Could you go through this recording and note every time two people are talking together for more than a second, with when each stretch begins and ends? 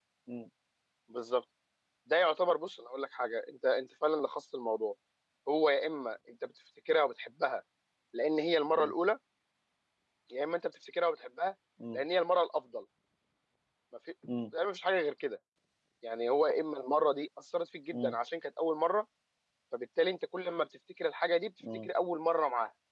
none

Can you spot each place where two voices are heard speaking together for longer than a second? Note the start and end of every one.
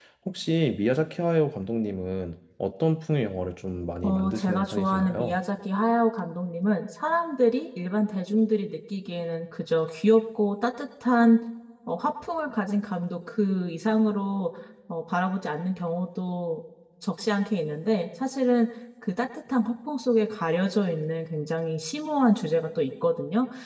4.0-5.4

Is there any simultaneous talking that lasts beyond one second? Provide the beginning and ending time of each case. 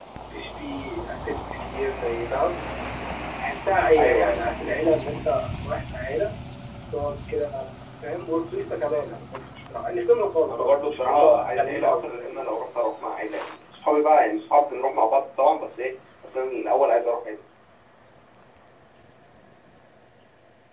10.5-12.4

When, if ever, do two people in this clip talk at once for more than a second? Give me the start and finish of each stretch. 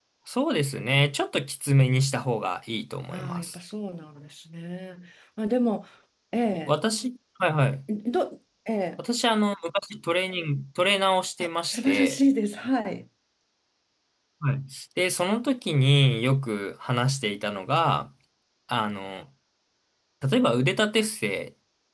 none

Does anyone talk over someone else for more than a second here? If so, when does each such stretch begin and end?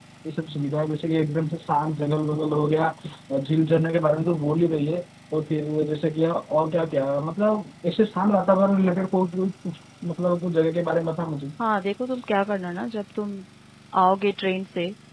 none

